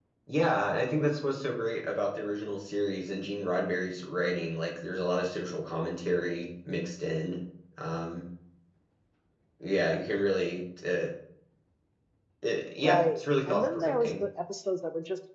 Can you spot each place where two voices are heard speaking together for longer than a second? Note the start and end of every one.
12.8-14.2

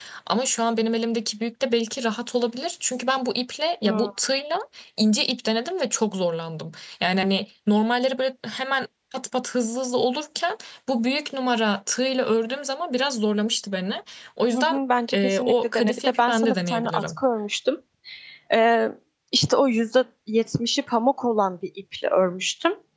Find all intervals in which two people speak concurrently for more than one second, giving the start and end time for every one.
15.1-17.2

